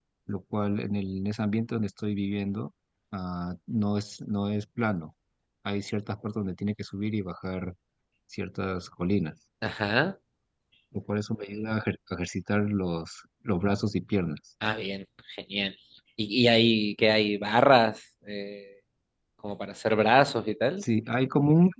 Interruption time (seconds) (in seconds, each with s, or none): none